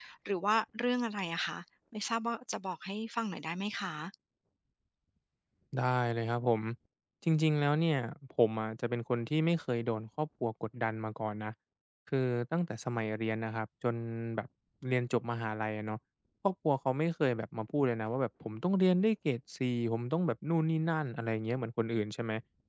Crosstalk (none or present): none